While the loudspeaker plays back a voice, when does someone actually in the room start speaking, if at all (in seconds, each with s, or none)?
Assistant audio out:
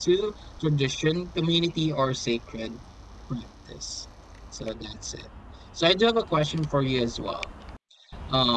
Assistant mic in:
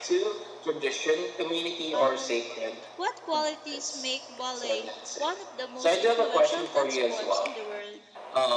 1.9 s